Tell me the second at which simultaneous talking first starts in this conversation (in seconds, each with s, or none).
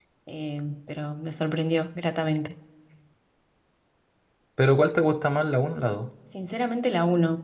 none